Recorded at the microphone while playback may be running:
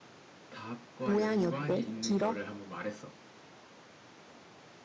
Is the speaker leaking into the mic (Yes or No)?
Yes